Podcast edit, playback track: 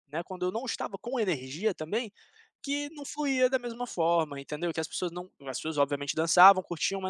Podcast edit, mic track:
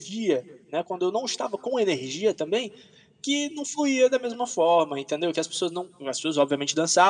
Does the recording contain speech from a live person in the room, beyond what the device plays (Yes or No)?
No